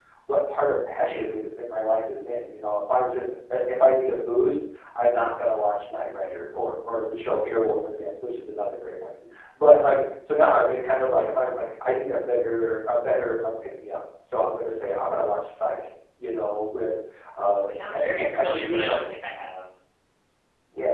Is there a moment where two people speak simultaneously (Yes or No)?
Yes